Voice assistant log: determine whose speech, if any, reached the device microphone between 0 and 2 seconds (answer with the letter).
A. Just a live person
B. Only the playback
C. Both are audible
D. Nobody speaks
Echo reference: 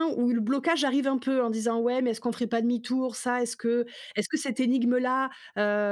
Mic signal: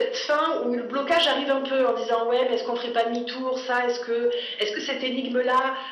B